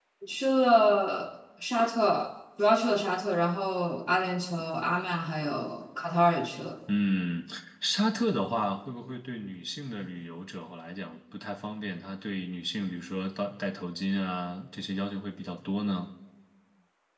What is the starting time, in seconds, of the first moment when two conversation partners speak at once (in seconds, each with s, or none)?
none